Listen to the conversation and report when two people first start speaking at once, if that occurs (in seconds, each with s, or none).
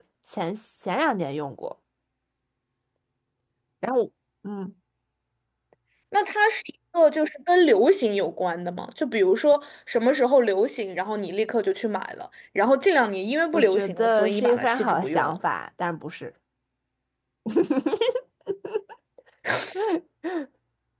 13.5 s